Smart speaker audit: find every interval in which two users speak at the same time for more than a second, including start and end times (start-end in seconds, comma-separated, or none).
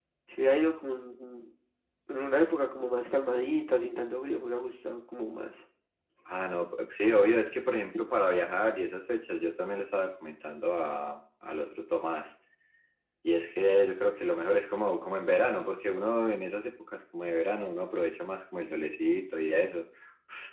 none